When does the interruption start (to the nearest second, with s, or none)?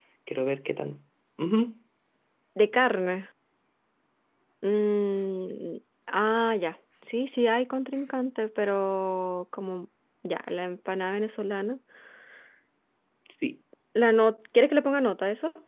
none